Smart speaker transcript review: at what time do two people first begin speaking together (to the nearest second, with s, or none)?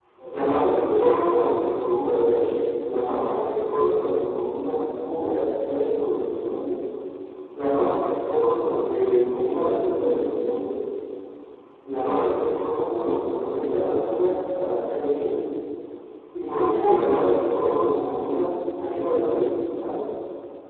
none